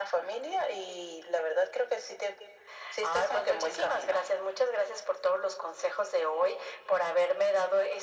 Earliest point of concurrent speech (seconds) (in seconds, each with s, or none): 3.0 s